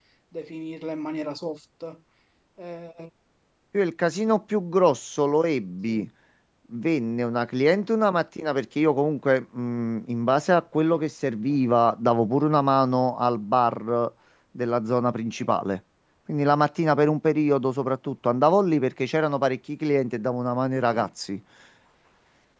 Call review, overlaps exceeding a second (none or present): none